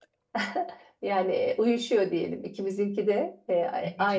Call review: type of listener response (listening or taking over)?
listening